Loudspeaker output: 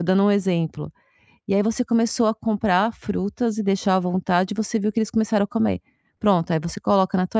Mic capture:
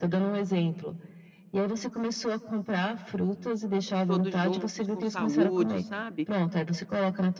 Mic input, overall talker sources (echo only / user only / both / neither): both